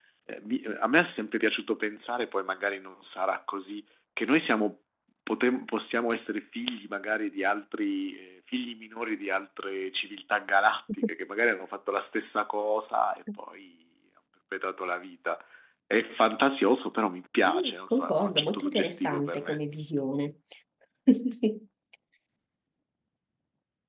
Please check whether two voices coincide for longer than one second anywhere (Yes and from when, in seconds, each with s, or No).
Yes, from 17.5 s